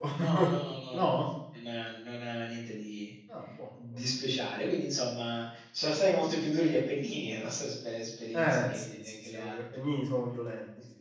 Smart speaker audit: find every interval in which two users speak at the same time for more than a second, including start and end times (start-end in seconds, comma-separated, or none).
8.3-9.6